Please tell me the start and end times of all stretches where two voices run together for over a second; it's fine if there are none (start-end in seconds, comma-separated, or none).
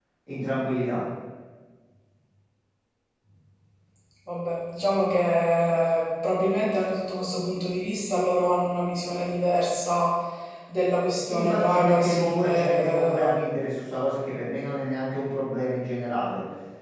11.3-13.3